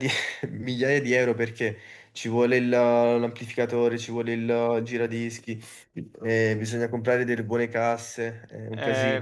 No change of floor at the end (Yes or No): No